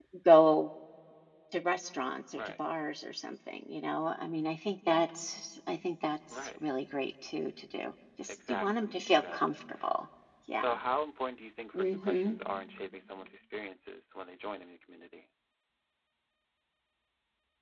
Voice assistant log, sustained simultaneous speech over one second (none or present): present